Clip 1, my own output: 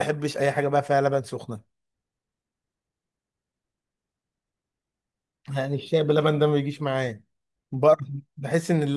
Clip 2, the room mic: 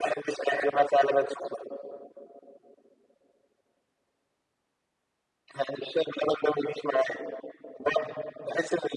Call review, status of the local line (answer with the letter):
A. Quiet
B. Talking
A